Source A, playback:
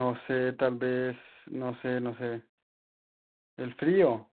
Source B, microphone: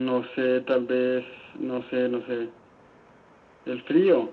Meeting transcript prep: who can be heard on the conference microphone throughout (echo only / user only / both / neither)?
echo only